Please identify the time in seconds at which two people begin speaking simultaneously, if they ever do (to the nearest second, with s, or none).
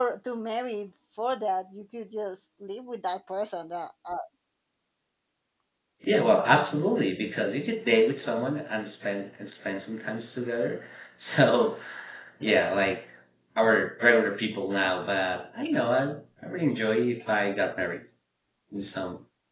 none